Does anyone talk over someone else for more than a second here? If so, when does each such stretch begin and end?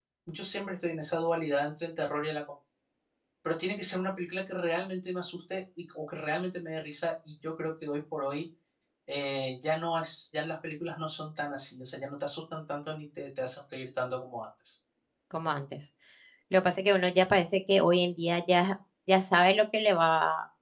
none

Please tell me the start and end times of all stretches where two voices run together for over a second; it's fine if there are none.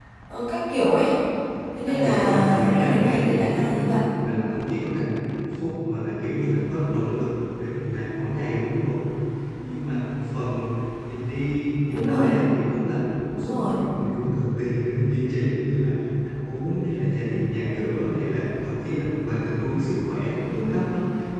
1.9-4.0

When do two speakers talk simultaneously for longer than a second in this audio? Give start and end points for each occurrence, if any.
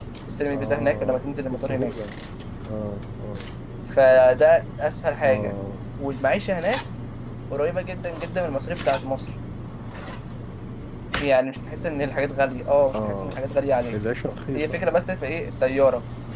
0.5-1.9

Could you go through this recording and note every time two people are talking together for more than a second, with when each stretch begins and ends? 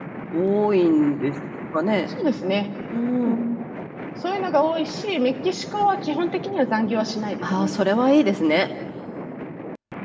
none

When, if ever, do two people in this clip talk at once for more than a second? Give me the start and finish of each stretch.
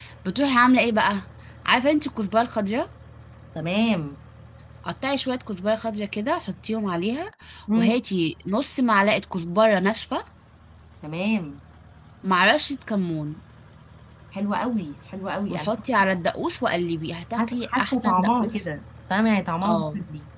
17.4-18.6

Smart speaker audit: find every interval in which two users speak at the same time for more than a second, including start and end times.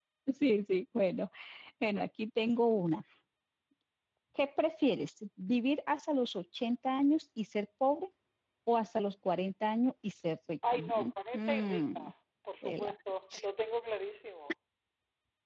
10.7-12.0

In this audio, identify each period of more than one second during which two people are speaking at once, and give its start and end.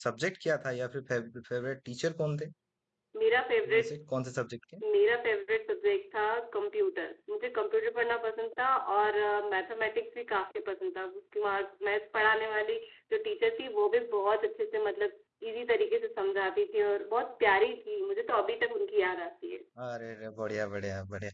none

